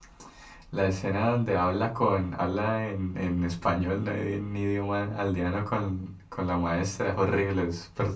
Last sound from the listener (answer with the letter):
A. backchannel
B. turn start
B